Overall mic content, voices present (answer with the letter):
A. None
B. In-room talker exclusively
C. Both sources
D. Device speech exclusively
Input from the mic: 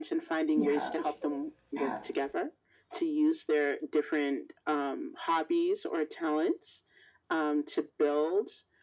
C